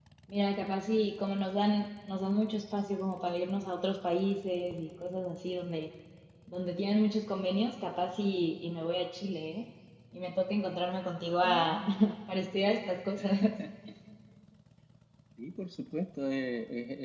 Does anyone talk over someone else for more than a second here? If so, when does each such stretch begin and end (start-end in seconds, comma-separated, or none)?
none